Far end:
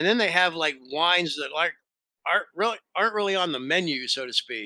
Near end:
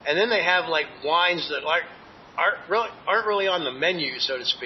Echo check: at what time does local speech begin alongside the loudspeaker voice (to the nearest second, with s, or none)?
none